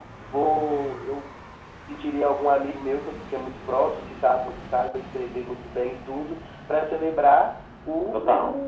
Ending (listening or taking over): listening